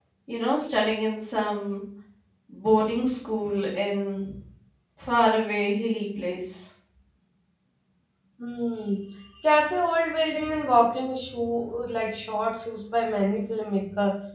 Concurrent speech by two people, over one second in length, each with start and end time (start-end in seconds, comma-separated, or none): none